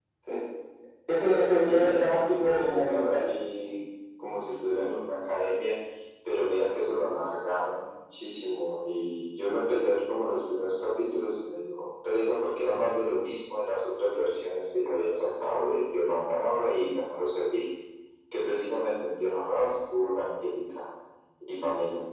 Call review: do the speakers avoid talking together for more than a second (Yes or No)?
No